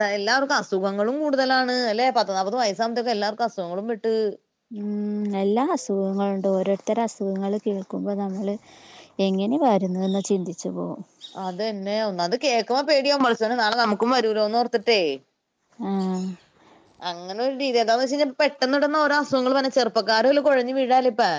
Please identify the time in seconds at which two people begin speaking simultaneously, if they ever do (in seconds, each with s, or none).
none